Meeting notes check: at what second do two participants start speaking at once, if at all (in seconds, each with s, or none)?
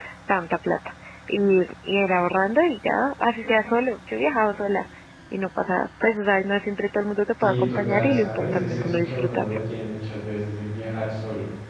7.4 s